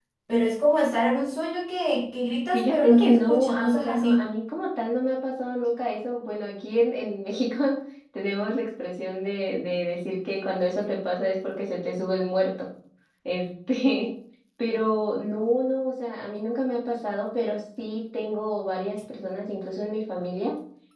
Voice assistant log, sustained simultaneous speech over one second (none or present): present